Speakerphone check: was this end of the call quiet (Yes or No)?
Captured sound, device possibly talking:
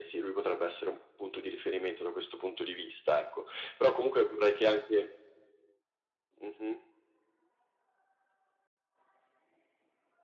Yes